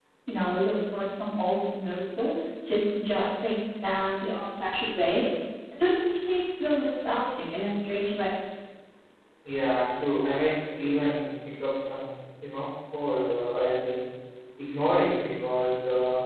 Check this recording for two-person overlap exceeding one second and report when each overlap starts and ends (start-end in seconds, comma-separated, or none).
none